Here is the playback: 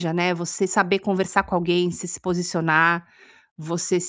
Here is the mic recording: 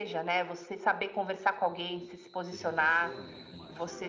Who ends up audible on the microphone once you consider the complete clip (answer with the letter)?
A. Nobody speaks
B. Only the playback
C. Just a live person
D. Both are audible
D